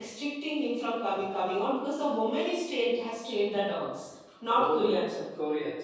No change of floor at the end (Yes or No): No